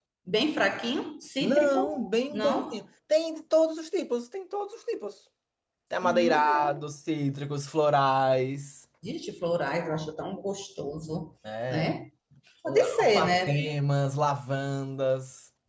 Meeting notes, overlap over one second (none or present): present